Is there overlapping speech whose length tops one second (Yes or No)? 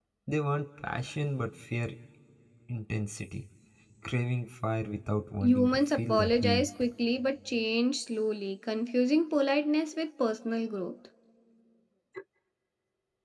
Yes